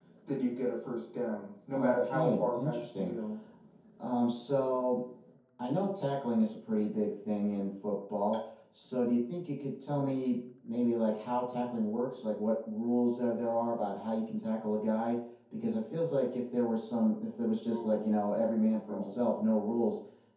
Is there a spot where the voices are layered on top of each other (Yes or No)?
Yes